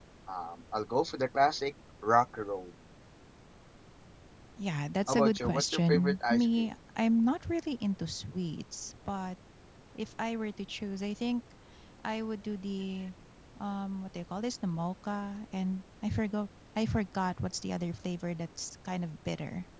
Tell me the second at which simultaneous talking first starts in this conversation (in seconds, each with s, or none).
5.1 s